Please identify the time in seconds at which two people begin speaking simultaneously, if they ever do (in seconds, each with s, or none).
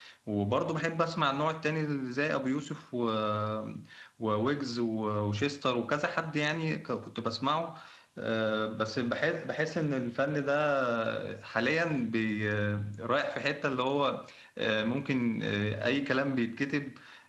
none